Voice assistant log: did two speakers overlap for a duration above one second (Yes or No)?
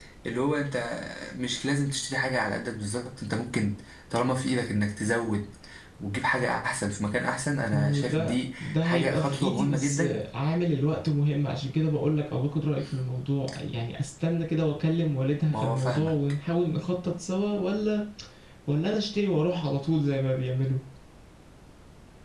Yes